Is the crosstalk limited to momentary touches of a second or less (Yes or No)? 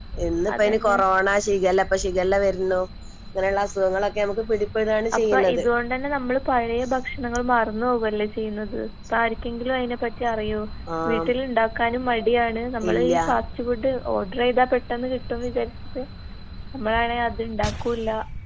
Yes